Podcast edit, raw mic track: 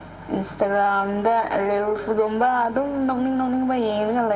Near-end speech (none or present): none